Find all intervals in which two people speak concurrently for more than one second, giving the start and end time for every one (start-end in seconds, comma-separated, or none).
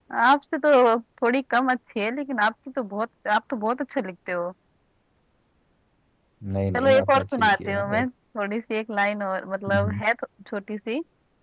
6.8-8.1